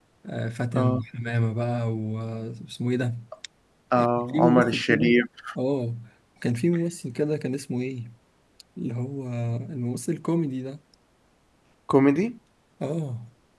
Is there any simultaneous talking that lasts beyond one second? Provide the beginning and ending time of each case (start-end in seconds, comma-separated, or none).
4.0-5.2